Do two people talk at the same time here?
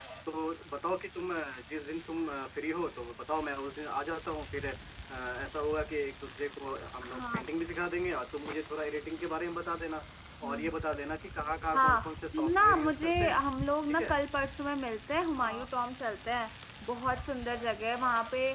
Yes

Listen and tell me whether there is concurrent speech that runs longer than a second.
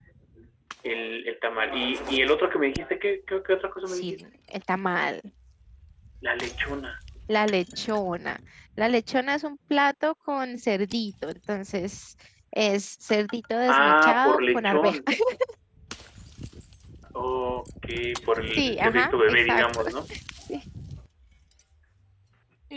Yes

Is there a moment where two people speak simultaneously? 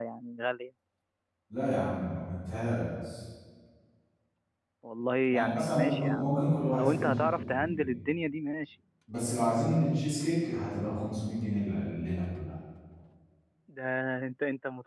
Yes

